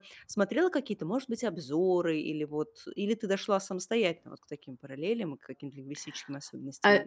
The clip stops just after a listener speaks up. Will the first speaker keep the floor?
No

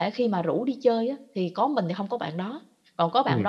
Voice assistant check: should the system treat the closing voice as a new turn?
No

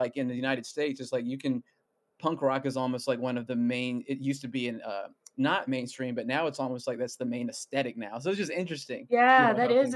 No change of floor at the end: No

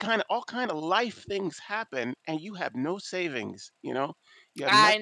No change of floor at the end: No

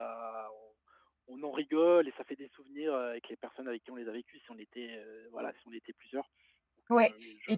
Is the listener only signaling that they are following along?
No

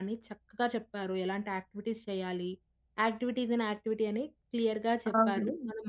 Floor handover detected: No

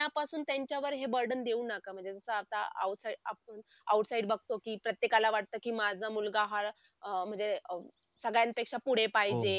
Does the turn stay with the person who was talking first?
No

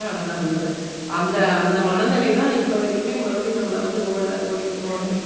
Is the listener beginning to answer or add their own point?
Yes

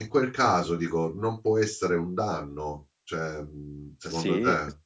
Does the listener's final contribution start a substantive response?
Yes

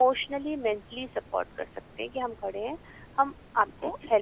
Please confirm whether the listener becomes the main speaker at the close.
No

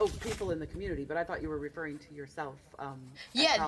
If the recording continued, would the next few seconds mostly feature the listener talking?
Yes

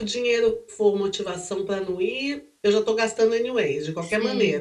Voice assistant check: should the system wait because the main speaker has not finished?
No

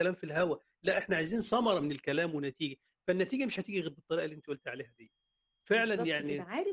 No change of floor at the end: No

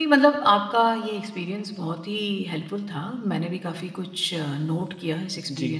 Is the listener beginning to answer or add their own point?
No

